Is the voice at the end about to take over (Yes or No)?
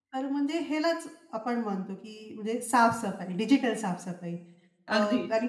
No